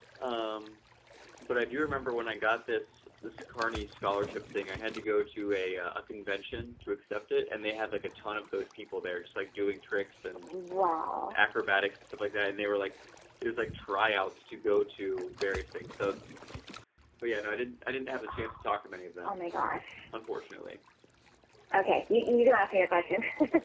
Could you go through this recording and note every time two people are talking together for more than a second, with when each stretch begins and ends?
none

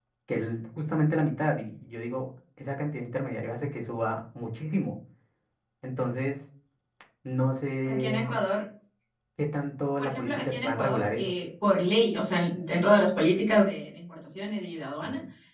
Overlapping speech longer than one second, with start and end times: 10.0-11.3

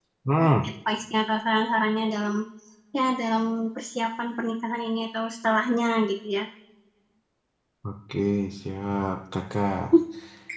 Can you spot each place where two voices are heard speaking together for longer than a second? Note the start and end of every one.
none

